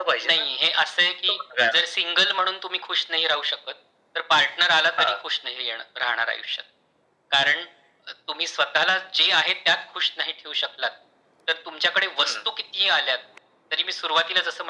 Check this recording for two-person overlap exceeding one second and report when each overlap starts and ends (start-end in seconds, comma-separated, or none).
none